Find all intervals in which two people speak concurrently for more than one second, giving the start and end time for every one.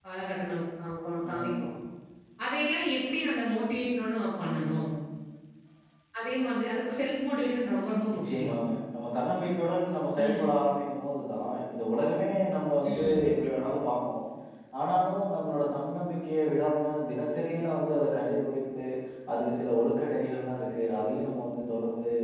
none

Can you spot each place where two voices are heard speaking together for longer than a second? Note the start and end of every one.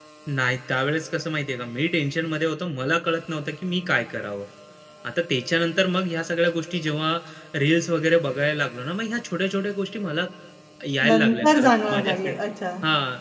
11.1-12.3

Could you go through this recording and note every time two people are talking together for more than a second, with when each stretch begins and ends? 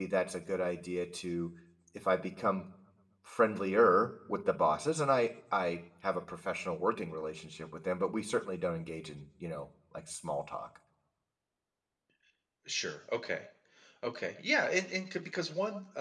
none

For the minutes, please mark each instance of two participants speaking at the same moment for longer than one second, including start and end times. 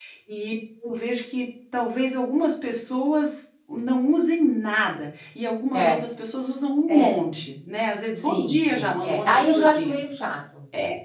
8.2-10.0

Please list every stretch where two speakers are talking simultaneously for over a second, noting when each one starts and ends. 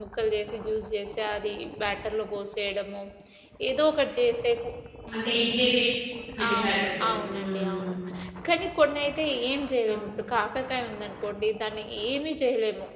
6.5-7.8

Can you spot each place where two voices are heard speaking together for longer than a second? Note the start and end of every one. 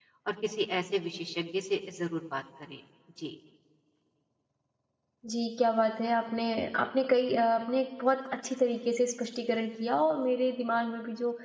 none

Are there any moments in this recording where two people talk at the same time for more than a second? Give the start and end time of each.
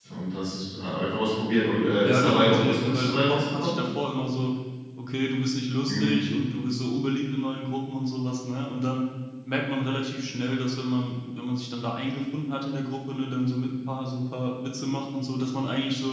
2.0-3.8

